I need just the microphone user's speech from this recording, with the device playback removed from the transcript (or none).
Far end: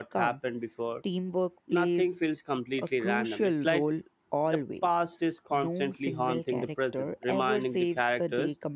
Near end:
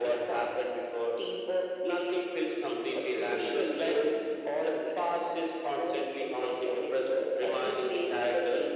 none